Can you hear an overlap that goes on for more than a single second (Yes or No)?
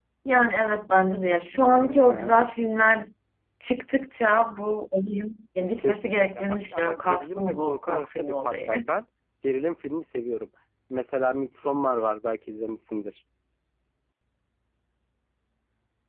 Yes